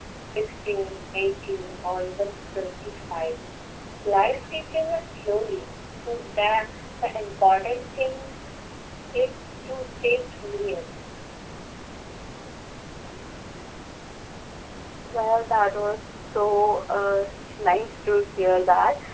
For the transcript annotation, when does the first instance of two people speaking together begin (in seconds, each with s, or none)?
none